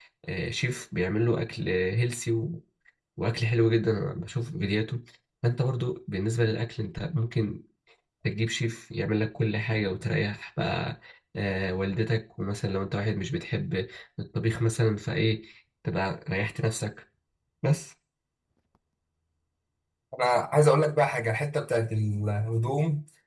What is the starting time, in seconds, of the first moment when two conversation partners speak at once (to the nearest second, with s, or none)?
none